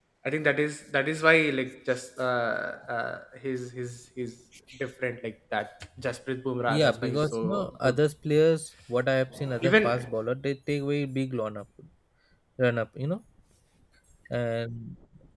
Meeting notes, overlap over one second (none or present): present